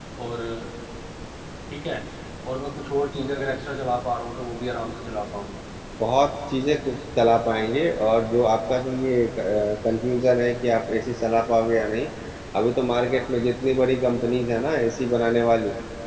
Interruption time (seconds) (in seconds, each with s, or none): none